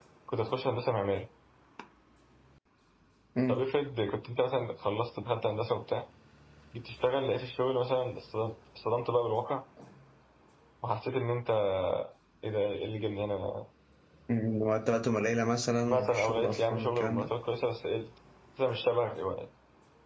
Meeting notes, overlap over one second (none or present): present